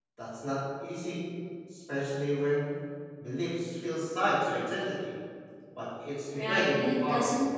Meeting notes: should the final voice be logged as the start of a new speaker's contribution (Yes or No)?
Yes